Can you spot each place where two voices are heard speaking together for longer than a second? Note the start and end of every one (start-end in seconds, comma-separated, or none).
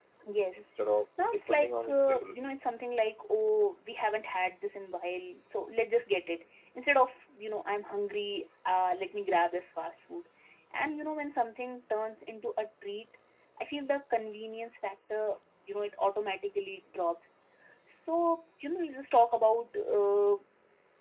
1.2-2.5